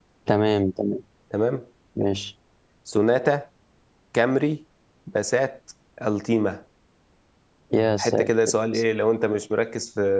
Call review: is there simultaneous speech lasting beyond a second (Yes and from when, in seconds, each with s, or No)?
No